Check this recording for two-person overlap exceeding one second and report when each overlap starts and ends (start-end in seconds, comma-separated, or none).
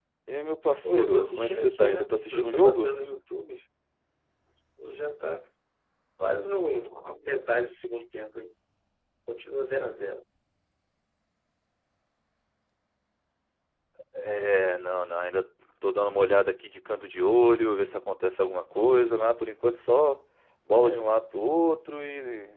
0.8-2.9